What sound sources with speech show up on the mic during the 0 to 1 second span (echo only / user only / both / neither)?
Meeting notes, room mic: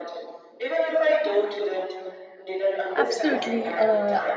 echo only